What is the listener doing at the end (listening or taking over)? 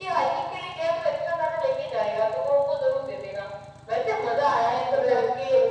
listening